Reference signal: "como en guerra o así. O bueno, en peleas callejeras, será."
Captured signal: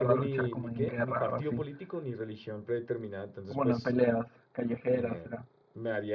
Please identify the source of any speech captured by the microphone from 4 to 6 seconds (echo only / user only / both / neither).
both